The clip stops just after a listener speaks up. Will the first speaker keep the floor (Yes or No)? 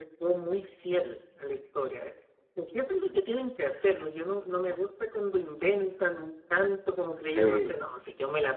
Yes